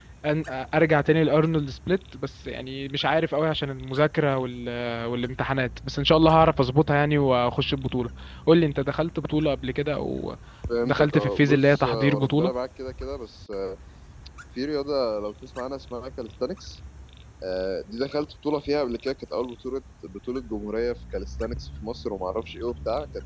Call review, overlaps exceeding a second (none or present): present